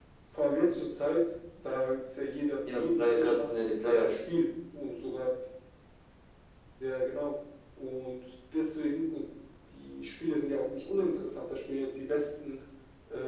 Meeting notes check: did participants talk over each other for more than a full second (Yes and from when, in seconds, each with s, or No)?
Yes, from 2.6 s